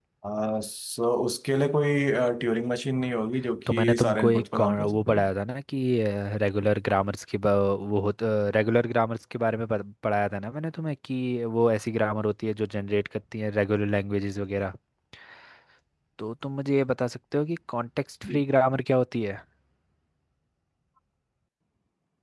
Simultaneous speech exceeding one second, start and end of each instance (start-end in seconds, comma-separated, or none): 3.7-5.3